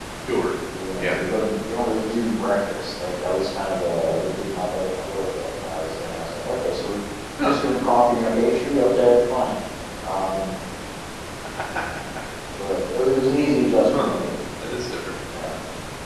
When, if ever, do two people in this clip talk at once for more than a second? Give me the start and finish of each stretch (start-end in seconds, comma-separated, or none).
none